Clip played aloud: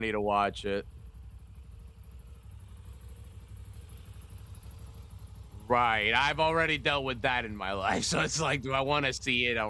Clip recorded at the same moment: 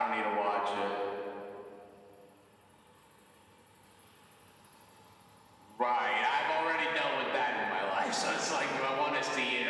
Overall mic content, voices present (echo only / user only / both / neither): echo only